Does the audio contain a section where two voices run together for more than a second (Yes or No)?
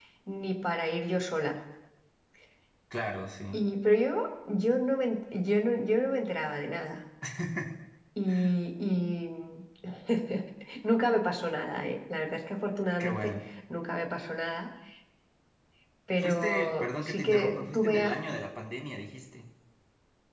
Yes